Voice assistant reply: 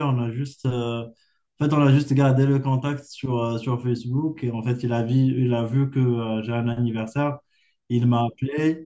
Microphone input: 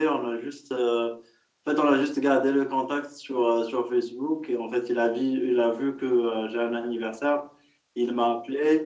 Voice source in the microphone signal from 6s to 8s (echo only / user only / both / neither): echo only